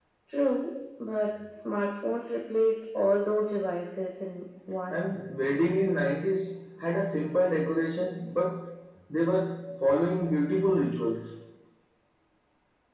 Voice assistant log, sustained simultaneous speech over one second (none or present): none